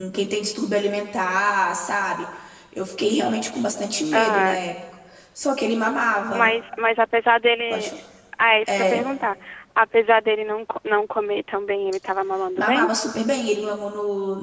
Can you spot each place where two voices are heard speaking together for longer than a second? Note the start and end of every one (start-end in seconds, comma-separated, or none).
none